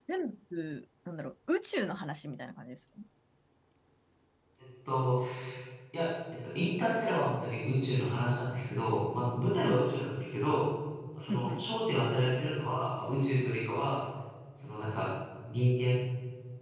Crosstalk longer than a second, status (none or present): none